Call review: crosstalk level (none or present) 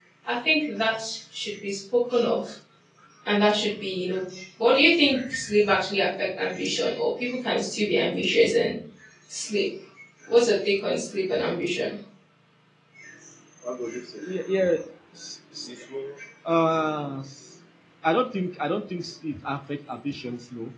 none